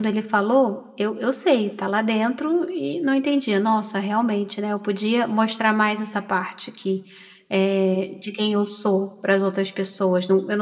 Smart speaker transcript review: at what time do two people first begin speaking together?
none

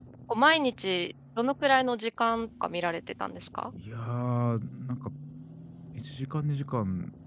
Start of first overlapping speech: none

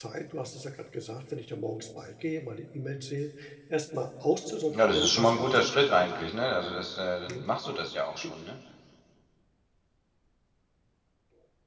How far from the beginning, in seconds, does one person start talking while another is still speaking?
4.7 s

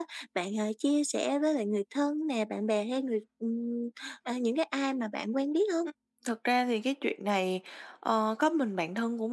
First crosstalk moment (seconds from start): none

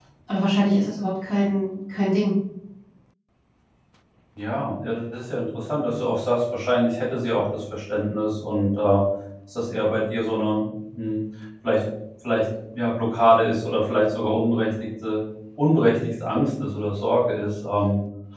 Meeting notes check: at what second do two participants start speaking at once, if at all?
none

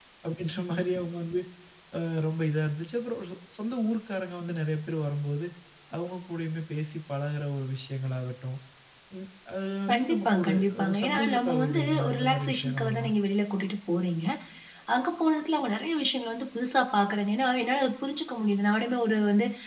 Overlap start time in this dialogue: 9.9 s

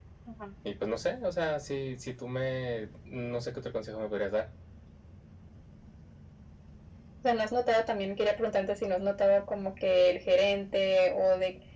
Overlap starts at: none

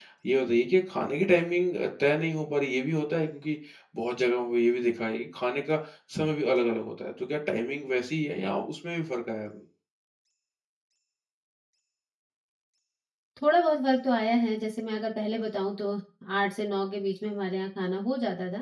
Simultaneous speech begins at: none

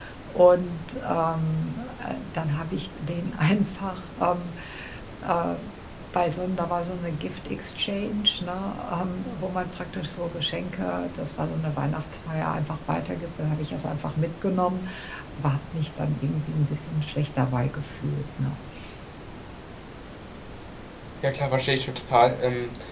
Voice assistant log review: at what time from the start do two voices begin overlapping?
none

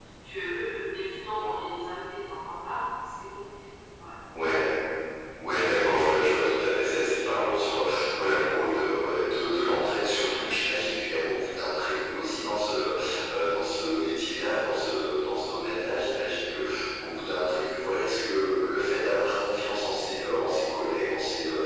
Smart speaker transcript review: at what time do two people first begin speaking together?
none

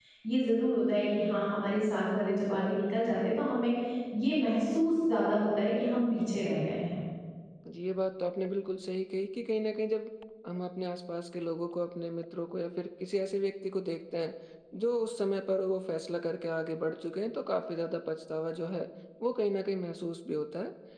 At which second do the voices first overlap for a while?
none

